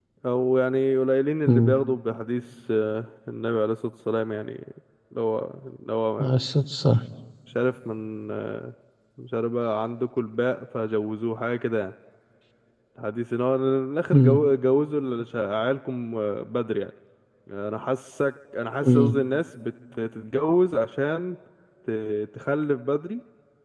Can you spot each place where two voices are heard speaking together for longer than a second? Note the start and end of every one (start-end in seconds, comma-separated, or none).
none